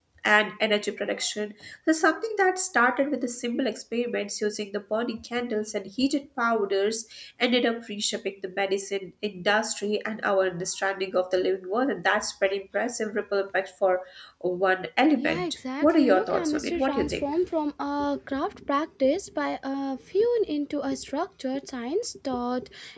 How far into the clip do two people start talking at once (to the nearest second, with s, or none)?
15 s